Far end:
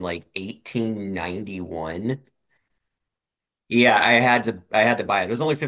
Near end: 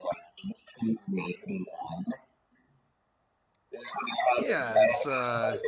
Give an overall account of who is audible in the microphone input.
both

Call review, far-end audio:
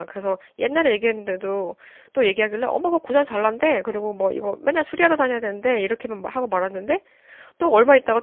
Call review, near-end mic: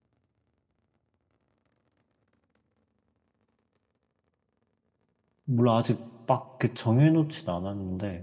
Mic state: user only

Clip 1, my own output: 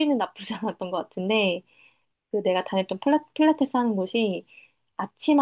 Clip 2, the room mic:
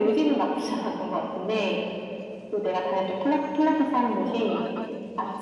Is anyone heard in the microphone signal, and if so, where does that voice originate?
both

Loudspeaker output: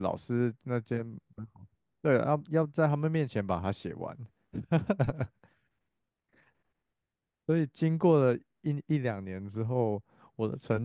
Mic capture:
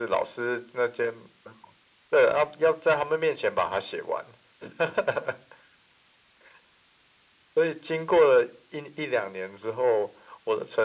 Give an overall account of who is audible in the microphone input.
echo only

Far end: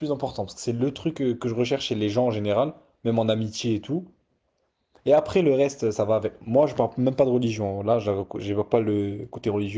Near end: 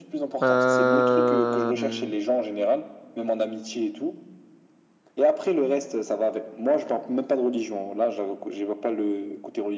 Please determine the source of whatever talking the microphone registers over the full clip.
both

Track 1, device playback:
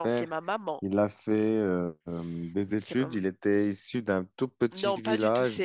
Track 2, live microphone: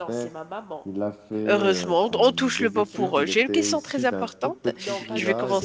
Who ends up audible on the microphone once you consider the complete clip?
both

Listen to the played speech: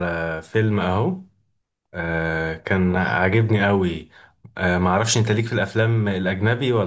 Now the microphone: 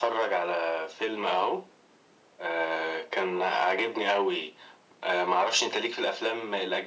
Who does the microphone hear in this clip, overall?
echo only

